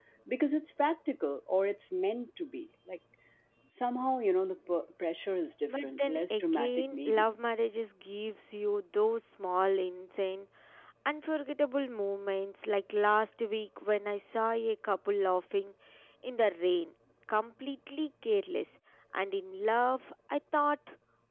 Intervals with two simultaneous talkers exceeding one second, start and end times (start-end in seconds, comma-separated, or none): 5.7-7.2